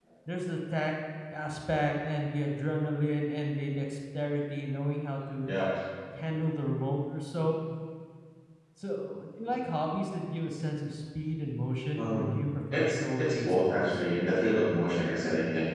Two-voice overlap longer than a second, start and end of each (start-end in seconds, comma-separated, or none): 12.7-14.0